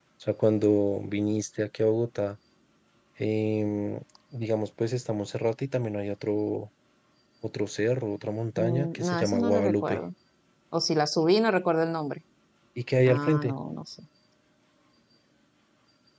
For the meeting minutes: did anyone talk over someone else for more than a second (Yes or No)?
Yes